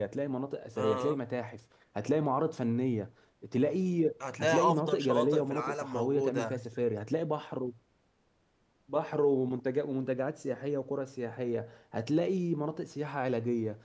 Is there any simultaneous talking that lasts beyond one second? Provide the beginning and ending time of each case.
4.4-6.5

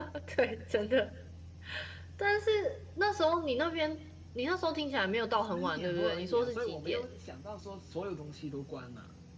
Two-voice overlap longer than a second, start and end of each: 5.5-7.0

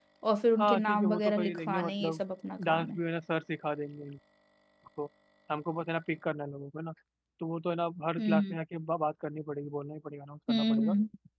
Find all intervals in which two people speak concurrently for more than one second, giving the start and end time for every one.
0.6-2.2

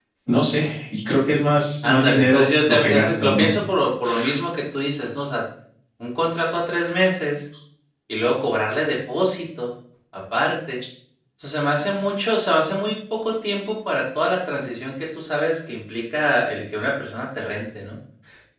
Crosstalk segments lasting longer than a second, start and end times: 1.8-3.5

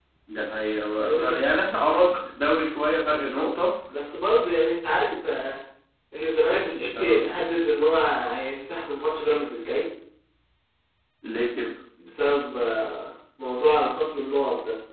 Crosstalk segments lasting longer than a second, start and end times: none

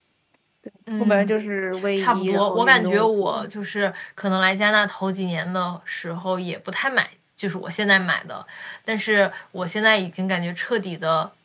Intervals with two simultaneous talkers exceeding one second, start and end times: 2.0-3.5

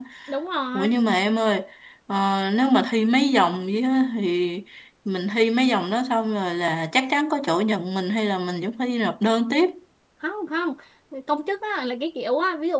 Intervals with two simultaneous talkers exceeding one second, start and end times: none

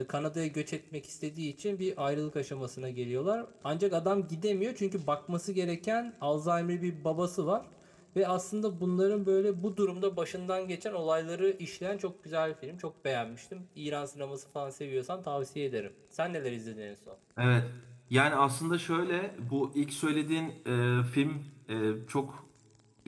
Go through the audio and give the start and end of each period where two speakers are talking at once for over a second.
none

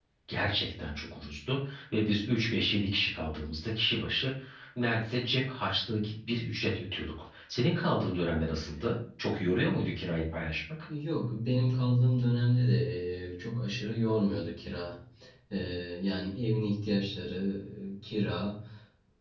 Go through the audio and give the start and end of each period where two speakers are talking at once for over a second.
none

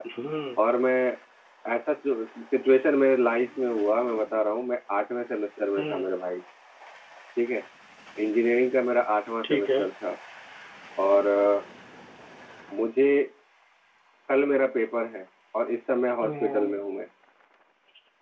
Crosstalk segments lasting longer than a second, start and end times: none

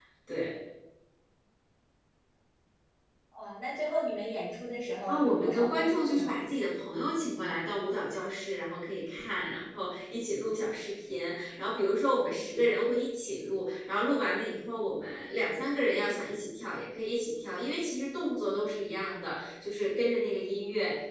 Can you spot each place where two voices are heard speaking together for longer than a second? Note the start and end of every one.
5.1-6.4

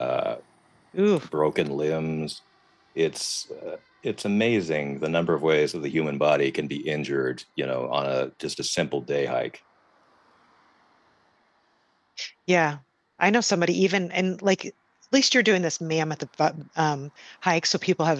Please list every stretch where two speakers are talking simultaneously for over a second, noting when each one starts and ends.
none

